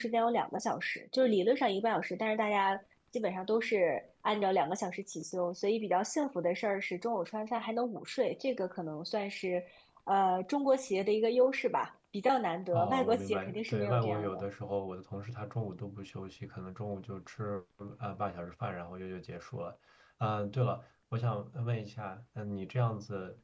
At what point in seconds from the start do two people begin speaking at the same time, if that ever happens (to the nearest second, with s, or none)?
13 s